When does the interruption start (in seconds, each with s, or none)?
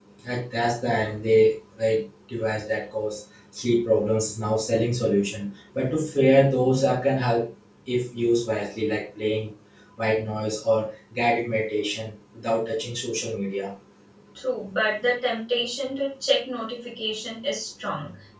none